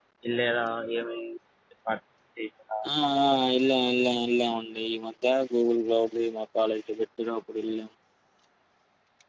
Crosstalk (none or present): none